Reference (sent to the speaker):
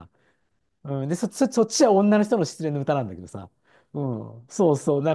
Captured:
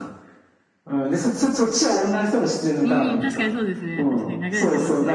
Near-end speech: present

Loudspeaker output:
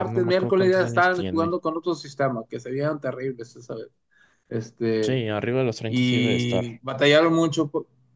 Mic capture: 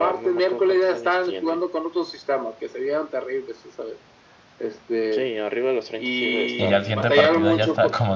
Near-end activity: present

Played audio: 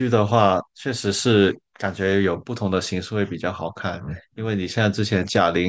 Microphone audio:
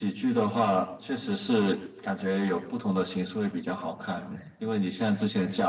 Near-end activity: none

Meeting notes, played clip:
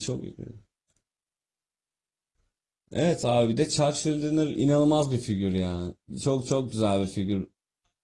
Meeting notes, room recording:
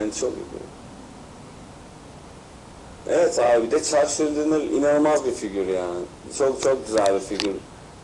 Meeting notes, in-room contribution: none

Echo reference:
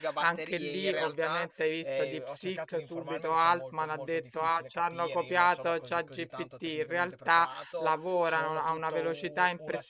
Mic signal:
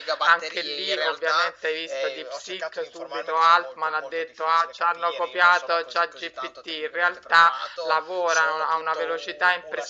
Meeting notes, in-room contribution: none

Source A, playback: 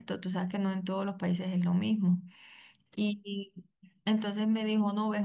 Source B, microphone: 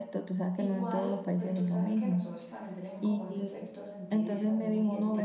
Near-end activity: present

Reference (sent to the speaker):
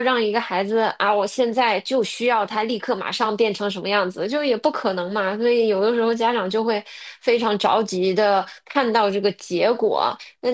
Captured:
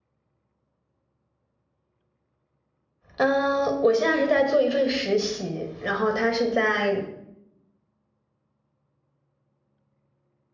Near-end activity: present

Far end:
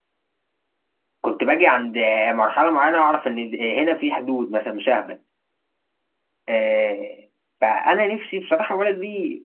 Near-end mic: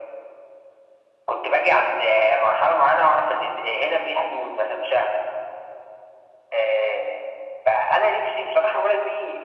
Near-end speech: none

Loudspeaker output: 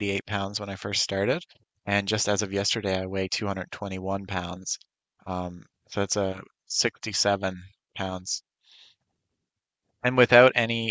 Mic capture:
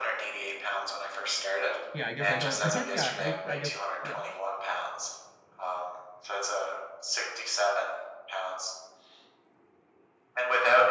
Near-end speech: present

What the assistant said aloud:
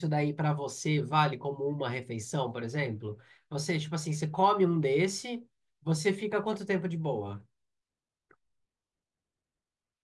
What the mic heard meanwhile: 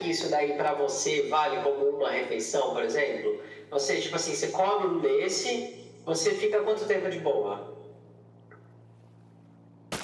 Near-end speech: none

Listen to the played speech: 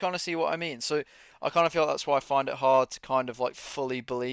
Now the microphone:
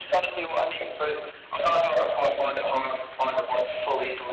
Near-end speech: none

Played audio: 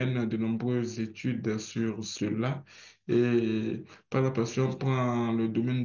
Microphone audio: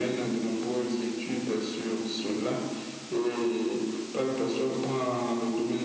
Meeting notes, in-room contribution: none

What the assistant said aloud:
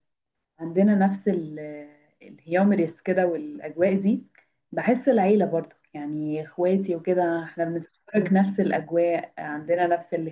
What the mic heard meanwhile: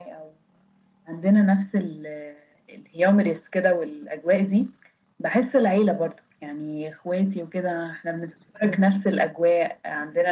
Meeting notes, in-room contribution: none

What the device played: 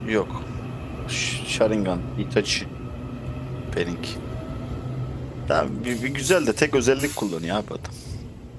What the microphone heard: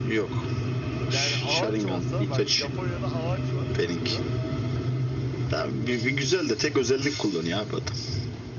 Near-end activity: present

